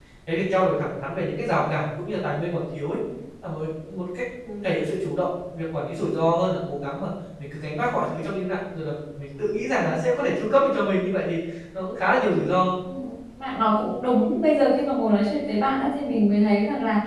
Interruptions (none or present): none